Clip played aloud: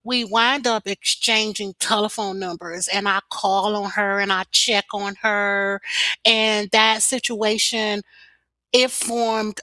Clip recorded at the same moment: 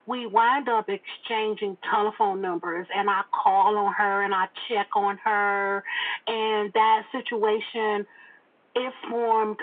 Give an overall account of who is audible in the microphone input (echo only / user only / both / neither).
echo only